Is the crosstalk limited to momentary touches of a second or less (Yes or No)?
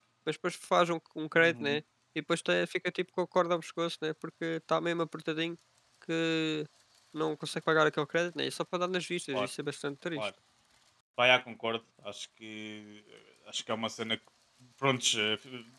Yes